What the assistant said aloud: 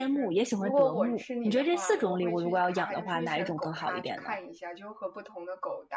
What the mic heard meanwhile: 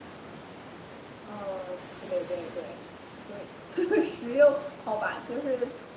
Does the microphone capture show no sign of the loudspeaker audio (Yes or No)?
Yes